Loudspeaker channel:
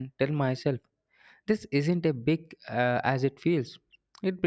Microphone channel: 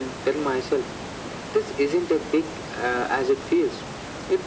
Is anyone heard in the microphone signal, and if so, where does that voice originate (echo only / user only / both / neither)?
echo only